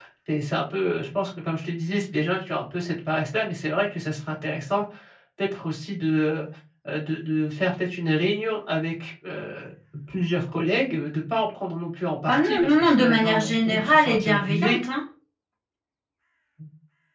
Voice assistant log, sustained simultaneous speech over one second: present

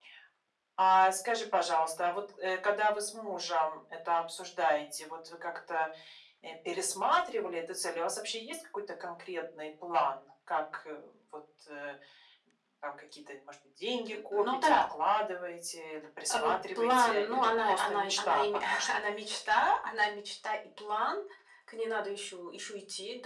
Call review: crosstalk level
present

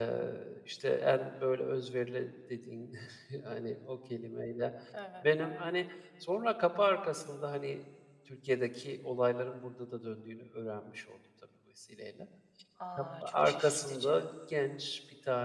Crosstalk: present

